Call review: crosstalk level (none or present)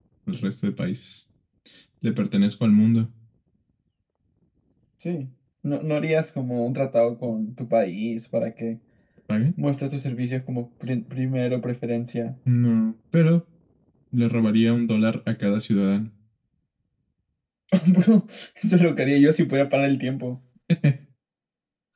none